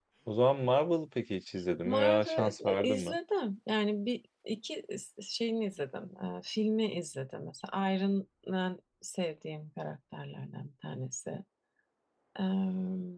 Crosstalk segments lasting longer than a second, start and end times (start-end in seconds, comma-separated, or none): 1.8-3.1